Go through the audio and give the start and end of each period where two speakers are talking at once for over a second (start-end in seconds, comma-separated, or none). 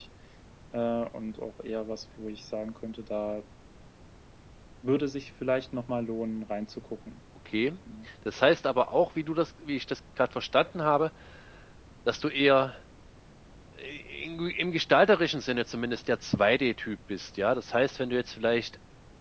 none